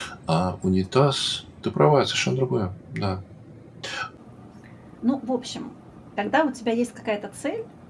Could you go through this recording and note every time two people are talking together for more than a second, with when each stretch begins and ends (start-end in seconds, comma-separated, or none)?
none